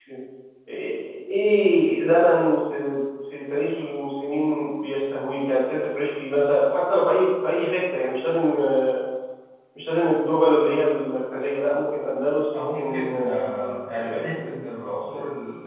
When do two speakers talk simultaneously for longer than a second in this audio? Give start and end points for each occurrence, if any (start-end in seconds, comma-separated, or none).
12.6-14.6